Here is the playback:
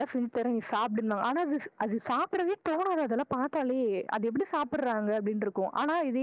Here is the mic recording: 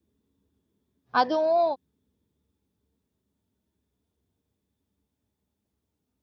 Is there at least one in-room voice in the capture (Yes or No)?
Yes